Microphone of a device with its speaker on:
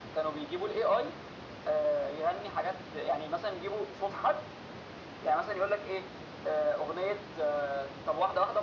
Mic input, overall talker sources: echo only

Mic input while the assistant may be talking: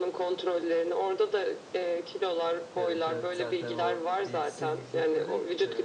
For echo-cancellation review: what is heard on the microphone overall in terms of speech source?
both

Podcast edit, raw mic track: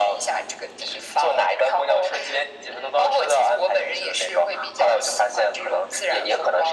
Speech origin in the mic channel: echo only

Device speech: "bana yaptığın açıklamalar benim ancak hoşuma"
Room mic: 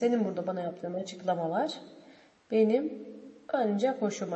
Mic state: echo only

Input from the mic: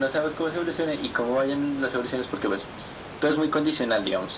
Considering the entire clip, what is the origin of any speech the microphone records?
echo only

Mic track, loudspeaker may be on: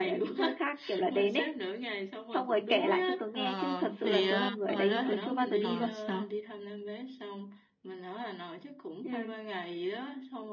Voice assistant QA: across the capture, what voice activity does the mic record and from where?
both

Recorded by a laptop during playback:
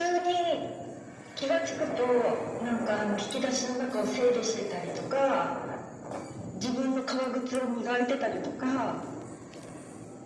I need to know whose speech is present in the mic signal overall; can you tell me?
echo only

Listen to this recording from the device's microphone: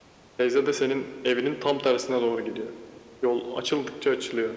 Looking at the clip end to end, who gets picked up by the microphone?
echo only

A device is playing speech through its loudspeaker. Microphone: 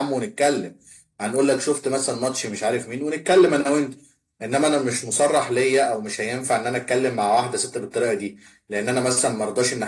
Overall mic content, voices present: echo only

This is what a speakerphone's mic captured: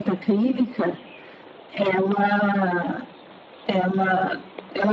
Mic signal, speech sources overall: echo only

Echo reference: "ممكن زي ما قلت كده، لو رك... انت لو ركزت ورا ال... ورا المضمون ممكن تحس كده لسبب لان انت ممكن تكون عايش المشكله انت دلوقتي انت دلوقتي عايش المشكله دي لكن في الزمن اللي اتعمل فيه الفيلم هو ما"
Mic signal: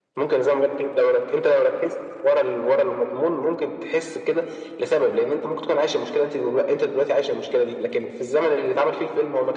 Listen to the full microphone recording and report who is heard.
echo only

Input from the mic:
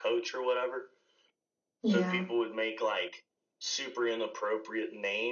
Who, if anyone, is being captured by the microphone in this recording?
both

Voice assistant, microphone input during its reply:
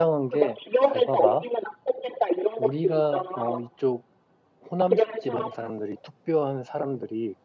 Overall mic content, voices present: both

